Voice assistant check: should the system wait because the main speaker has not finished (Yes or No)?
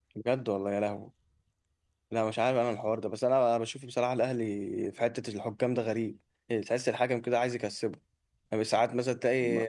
Yes